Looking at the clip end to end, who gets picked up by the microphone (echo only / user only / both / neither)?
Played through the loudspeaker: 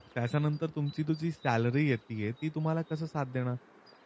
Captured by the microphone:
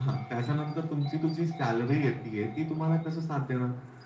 echo only